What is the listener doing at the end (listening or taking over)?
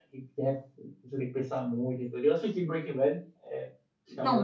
taking over